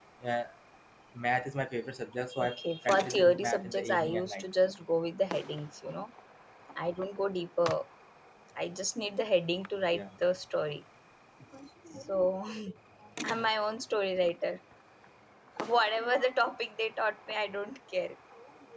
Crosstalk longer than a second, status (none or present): present